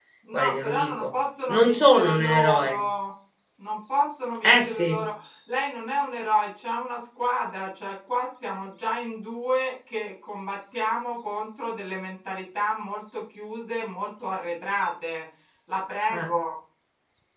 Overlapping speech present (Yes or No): Yes